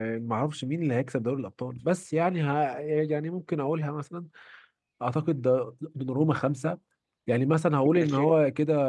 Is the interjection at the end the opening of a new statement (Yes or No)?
No